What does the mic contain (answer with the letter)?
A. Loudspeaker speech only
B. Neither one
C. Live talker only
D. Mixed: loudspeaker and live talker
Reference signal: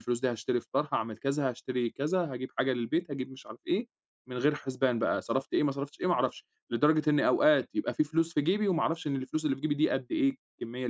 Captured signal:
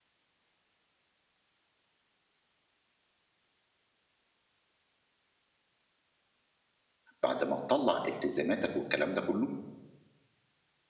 C